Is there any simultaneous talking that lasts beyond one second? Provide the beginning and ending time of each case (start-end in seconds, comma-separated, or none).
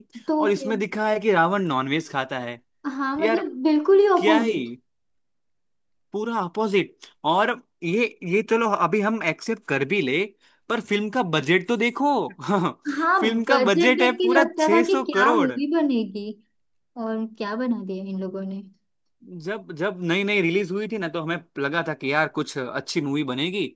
13.2-15.5